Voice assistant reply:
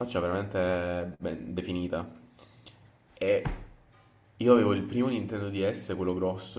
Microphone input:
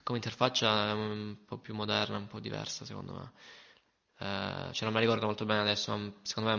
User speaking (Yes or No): Yes